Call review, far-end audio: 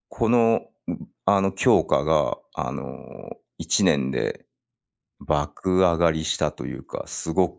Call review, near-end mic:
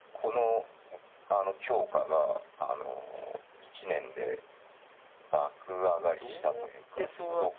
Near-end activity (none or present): present